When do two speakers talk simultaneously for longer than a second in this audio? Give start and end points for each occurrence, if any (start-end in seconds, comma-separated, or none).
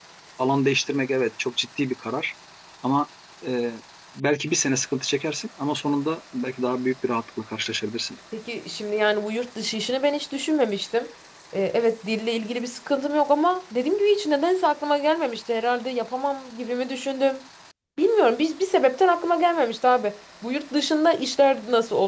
none